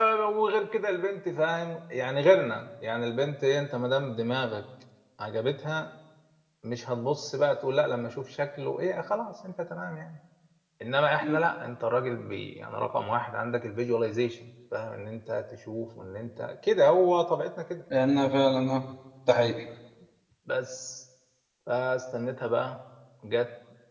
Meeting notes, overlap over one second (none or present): none